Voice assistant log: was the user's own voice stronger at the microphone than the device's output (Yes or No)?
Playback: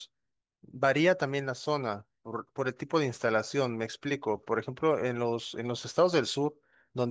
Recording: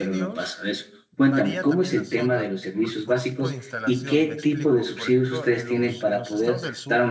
Yes